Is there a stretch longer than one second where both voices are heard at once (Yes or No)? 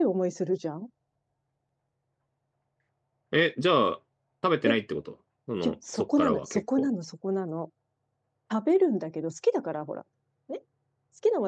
Yes